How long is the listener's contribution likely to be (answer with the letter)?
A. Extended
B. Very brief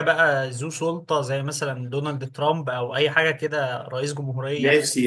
A